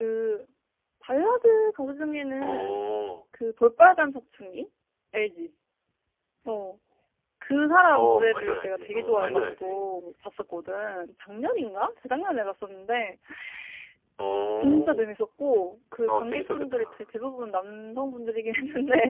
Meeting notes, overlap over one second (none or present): present